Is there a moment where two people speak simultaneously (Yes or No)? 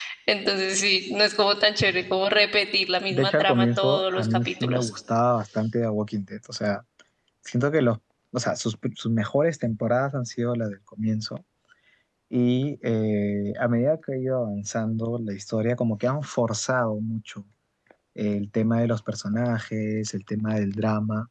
Yes